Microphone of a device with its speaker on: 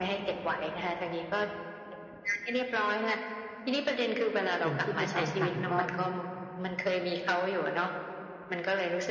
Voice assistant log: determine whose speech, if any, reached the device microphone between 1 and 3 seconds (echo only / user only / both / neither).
echo only